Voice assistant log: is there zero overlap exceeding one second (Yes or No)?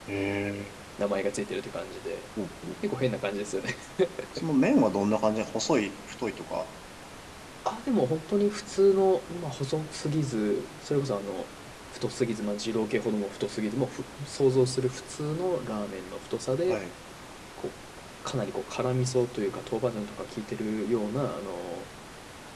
Yes